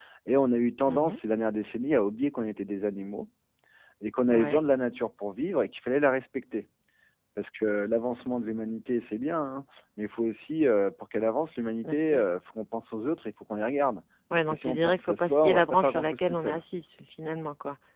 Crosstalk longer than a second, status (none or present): present